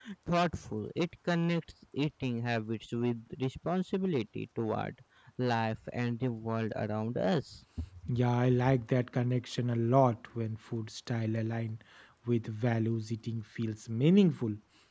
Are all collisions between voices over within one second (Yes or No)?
Yes